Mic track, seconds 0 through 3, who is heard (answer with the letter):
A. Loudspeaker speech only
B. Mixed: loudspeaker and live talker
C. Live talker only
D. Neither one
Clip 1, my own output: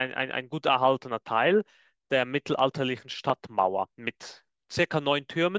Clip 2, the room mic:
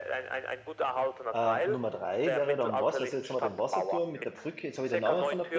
B